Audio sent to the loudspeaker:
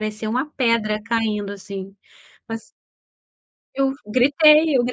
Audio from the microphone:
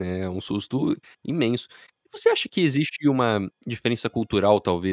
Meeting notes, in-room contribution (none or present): present